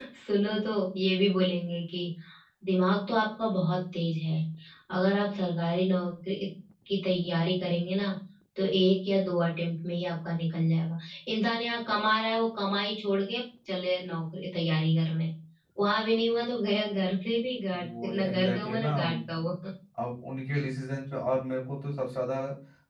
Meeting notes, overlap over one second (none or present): present